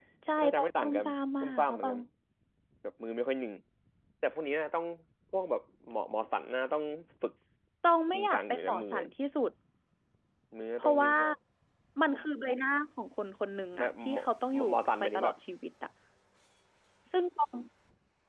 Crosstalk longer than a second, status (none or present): present